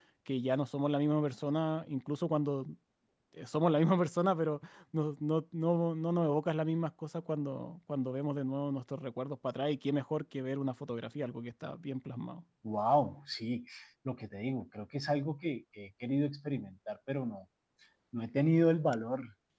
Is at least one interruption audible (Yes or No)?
No